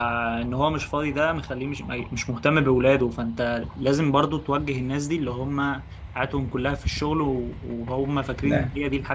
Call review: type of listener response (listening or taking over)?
listening